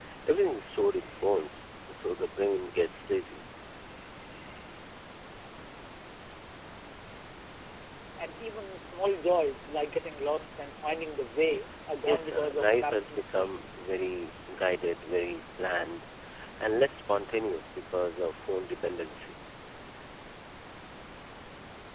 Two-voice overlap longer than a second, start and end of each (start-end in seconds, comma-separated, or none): 12.0-13.7